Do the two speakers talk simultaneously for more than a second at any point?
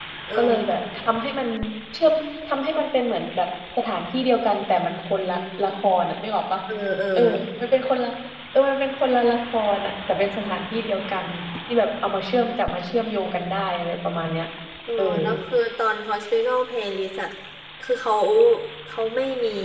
No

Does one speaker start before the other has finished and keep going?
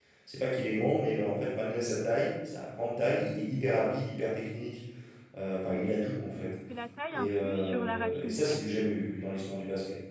Yes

